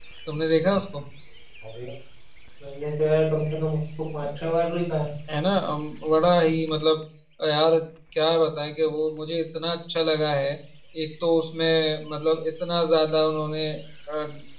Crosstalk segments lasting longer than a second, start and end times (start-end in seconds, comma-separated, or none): none